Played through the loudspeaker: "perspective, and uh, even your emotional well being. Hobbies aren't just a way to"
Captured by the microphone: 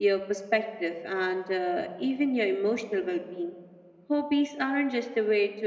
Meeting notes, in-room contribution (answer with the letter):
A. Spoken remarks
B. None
B